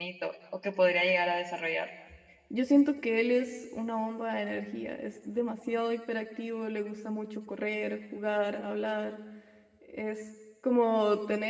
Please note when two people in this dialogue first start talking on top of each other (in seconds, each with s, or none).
none